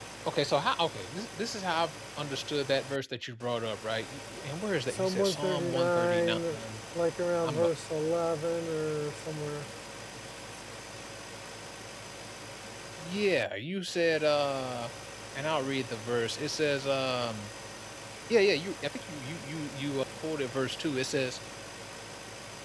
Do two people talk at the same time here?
Yes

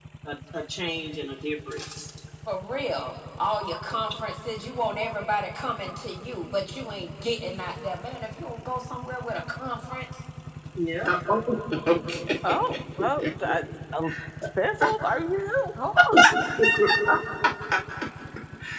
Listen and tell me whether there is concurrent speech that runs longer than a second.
No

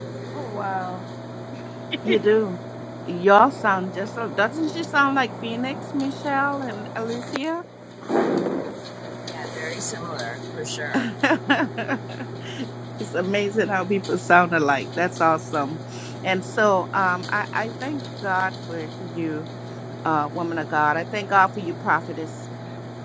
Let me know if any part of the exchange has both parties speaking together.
No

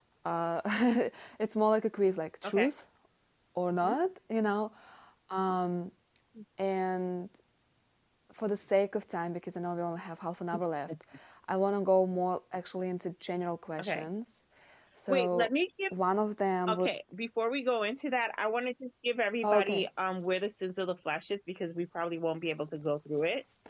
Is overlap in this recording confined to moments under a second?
Yes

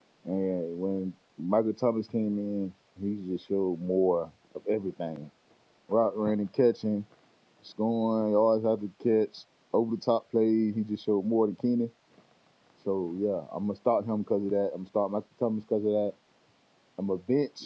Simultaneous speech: No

